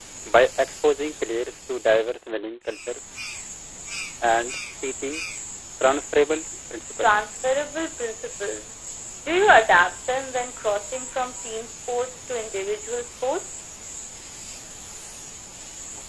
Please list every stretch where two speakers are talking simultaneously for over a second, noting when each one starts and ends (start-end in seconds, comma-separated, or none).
none